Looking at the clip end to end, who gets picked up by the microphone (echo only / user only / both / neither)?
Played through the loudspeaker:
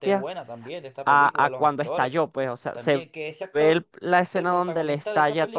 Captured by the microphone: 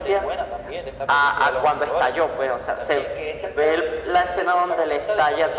echo only